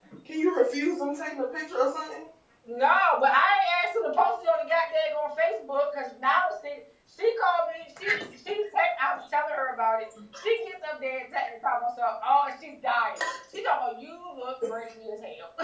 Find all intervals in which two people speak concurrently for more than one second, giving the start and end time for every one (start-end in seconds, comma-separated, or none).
none